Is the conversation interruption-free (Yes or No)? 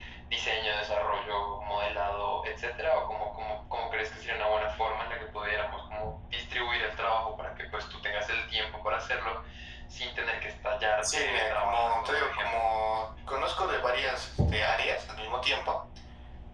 No